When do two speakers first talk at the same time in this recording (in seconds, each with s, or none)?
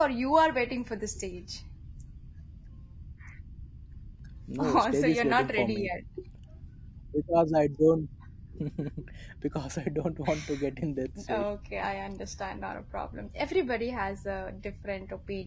4.6 s